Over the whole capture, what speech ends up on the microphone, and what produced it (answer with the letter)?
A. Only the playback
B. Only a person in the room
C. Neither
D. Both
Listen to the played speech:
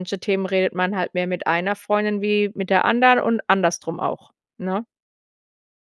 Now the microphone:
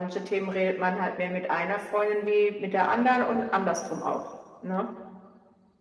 A